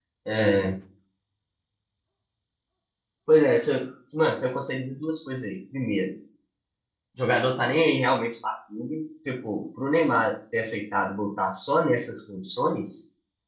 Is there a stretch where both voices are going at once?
No

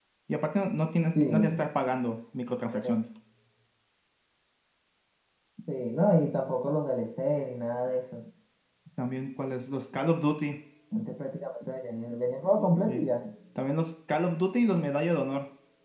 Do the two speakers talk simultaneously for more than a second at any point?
No

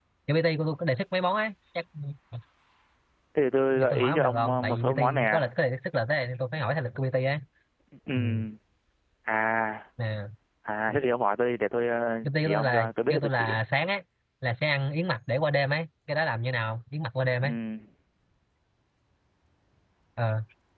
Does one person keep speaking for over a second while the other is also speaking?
Yes, from 3.7 s

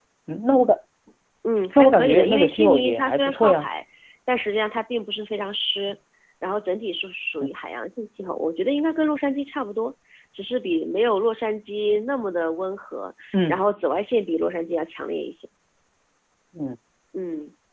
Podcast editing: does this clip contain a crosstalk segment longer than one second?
Yes, from 1.8 s

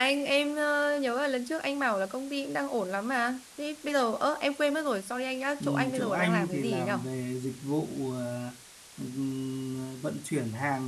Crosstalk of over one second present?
Yes, from 5.6 s

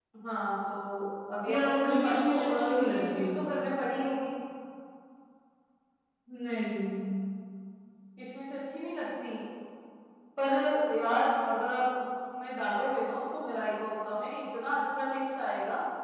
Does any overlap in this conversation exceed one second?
Yes, from 1.5 s

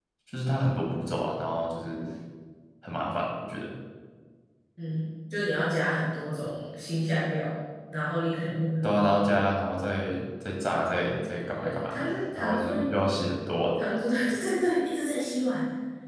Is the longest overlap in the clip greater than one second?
Yes, from 11.6 s

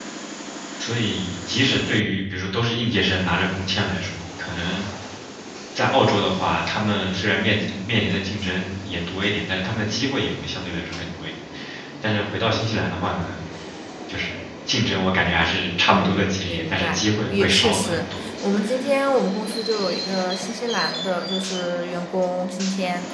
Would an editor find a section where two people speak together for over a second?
Yes, from 15.9 s

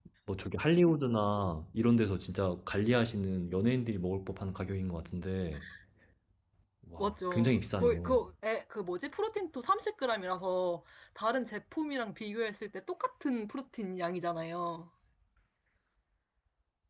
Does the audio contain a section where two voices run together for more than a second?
Yes, from 7.0 s

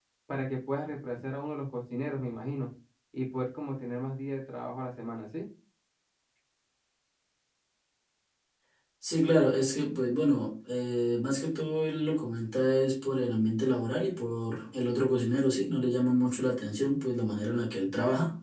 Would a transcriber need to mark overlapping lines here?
No

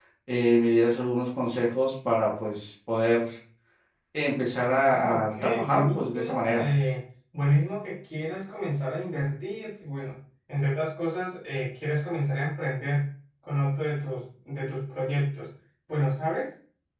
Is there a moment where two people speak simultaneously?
Yes, from 4.8 s

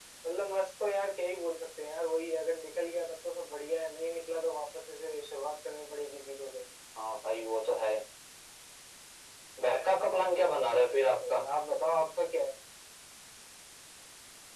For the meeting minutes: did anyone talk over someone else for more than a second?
No

